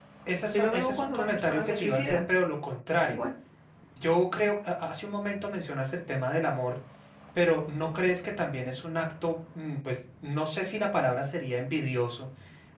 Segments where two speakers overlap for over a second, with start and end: 0.5-2.2

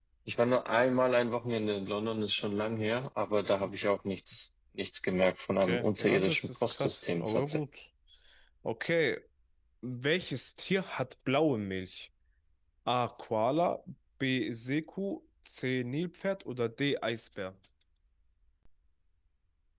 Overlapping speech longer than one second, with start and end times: 5.6-7.6

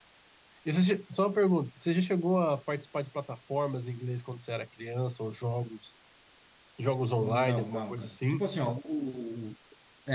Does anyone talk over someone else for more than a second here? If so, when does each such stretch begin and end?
7.2-8.4

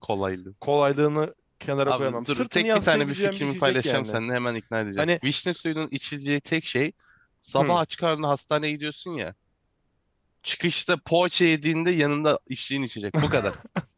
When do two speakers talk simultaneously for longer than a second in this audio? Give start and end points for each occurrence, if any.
1.9-4.2

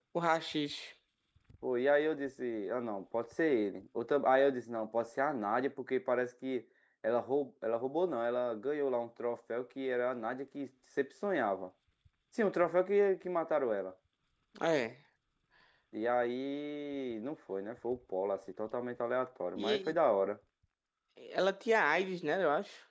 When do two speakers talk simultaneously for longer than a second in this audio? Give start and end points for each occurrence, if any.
none

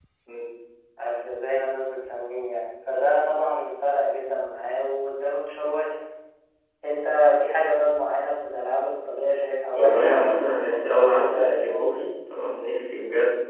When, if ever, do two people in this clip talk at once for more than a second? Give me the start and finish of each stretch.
9.8-12.0

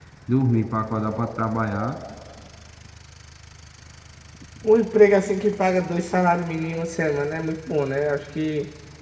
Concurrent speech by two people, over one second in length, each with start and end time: none

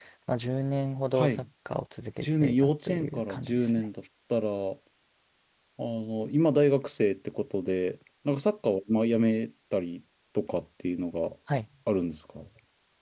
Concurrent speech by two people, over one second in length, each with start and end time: 2.2-3.8

